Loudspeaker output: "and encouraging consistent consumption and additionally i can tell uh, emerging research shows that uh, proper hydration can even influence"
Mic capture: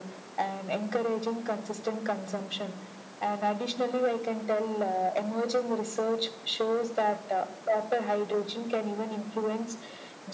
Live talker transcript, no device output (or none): none